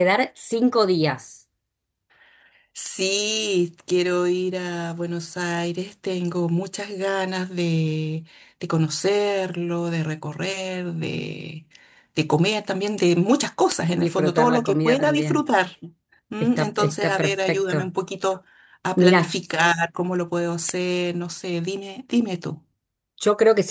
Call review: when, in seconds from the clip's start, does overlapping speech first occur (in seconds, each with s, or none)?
13.9 s